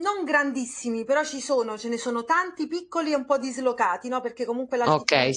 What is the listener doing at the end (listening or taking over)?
taking over